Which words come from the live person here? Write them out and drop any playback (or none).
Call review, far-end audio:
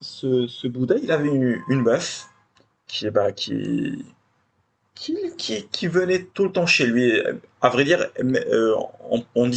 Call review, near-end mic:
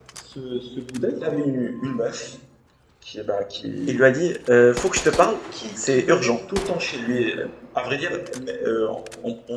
il lui a dit, Euh, faut que je te parle, c'est urgent.